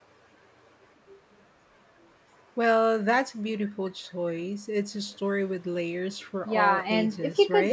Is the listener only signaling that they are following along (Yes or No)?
No